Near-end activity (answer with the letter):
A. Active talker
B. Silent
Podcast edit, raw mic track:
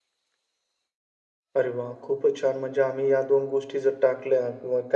A